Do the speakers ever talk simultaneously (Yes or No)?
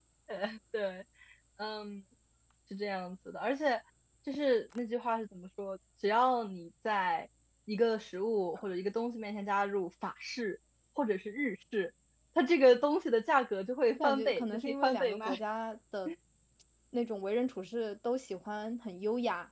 Yes